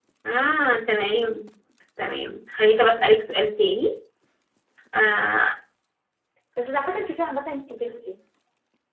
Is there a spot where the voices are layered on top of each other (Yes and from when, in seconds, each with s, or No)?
No